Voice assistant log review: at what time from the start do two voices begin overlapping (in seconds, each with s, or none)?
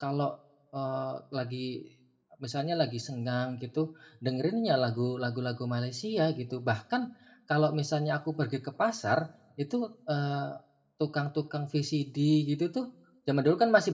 none